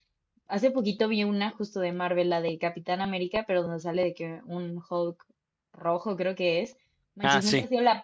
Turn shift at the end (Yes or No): No